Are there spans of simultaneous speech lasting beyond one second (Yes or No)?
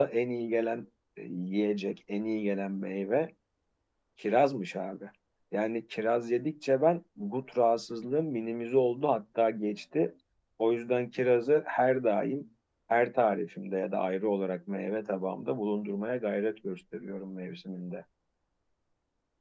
No